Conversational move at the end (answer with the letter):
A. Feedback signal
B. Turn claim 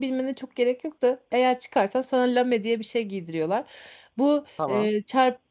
A